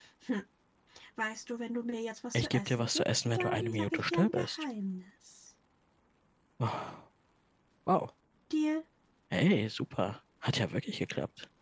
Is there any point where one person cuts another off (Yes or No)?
Yes